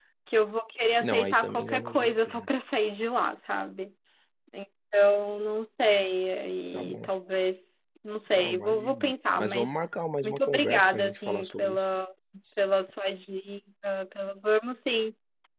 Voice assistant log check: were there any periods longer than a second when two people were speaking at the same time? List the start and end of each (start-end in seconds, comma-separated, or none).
1.0-2.5, 8.3-9.7, 10.2-11.8